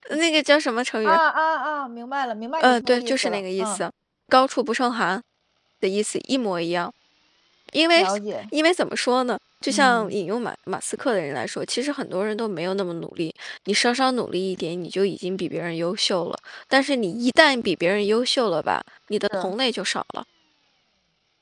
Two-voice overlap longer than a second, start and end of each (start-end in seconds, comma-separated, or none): 2.6-3.8